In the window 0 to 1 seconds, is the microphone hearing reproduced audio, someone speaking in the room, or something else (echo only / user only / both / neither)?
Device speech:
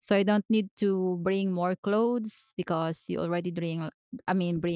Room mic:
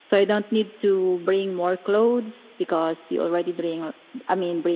echo only